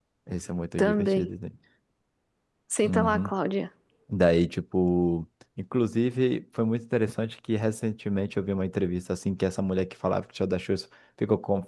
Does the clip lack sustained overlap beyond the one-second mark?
Yes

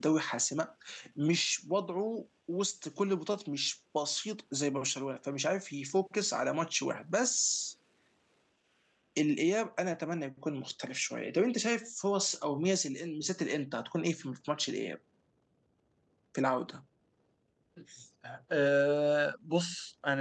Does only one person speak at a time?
Yes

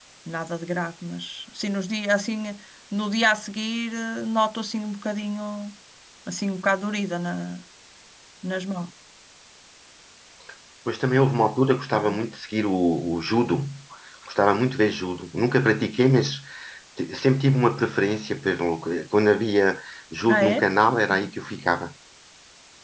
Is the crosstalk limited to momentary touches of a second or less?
Yes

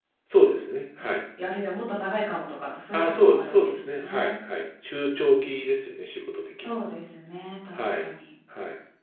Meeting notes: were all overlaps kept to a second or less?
No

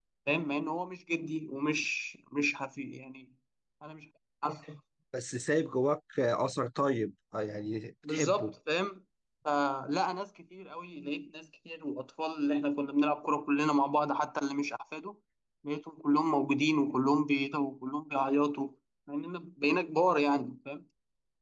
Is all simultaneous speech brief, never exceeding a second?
Yes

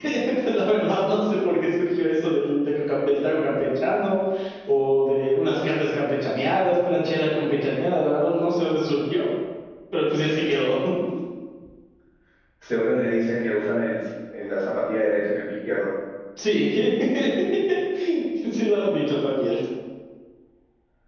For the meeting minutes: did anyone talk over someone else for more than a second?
No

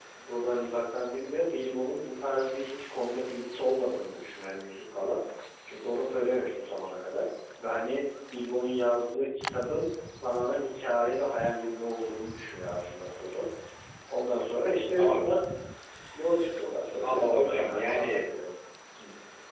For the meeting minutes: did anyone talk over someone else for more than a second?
Yes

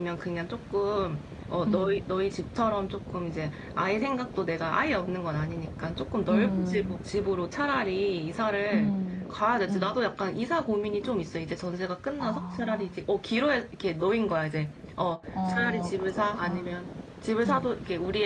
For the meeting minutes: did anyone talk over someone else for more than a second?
Yes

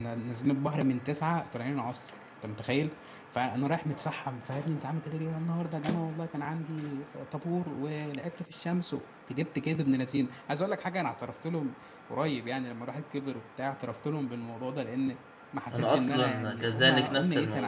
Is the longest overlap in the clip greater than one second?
Yes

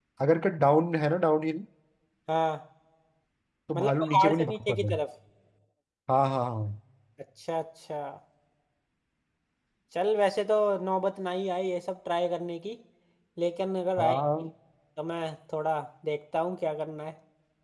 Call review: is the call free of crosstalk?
No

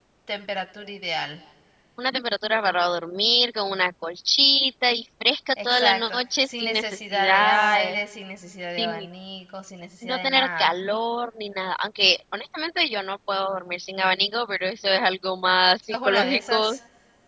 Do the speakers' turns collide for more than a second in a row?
Yes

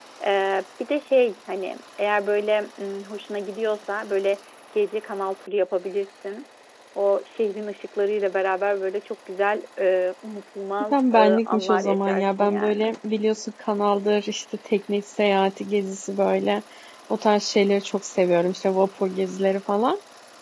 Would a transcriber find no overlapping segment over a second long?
No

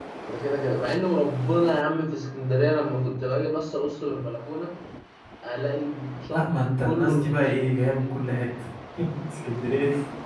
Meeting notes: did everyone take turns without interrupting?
No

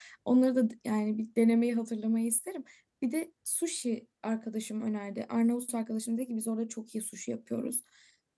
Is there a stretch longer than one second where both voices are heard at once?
No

